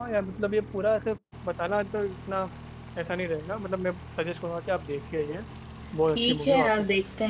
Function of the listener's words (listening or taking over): taking over